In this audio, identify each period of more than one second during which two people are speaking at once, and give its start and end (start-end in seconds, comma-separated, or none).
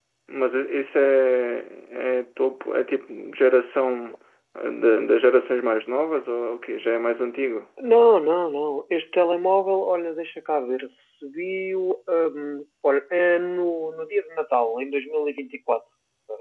none